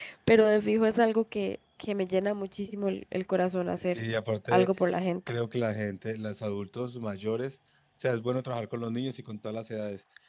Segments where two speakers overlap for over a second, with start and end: none

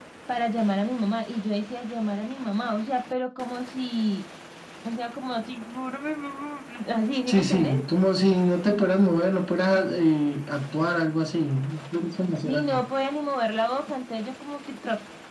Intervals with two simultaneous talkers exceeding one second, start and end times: none

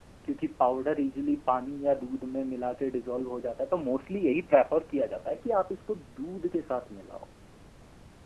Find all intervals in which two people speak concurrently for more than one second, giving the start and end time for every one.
none

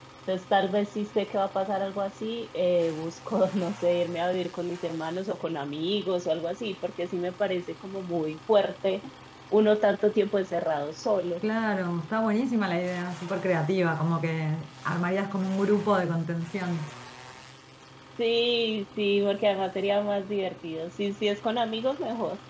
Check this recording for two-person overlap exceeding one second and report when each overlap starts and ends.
none

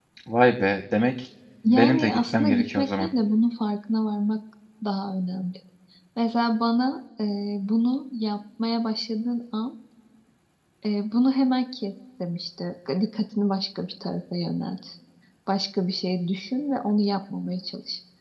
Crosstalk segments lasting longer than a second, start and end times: 1.7-3.1

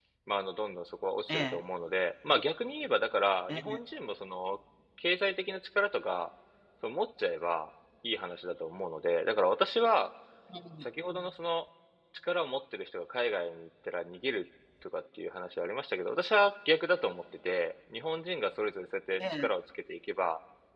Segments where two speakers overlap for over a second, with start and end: none

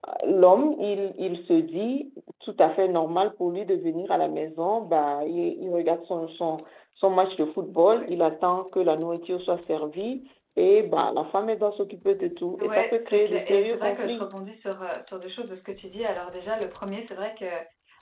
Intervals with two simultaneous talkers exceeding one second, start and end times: 12.6-14.3

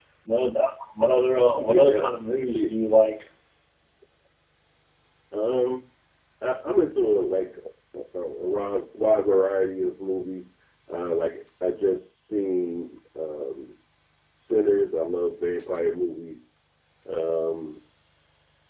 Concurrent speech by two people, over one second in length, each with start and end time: none

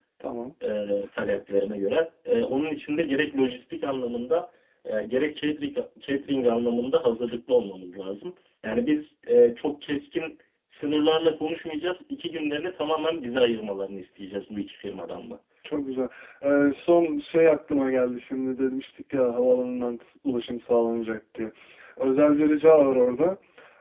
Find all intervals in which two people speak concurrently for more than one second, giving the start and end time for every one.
none

